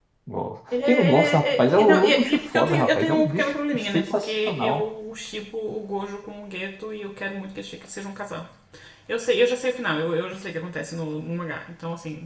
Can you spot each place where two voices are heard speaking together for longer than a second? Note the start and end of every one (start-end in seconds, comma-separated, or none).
0.8-4.8